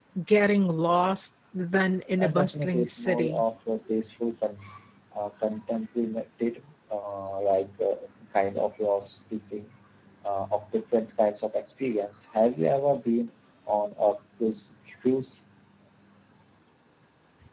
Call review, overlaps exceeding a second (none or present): present